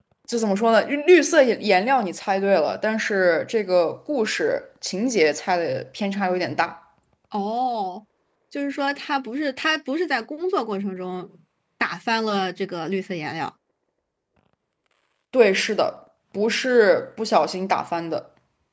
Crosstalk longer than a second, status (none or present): none